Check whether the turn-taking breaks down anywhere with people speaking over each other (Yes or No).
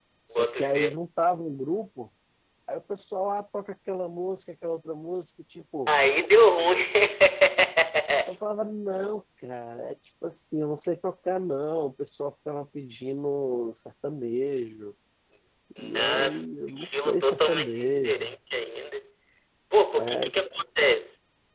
Yes